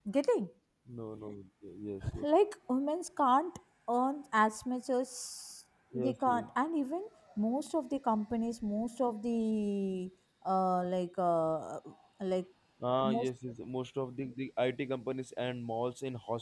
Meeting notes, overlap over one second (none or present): none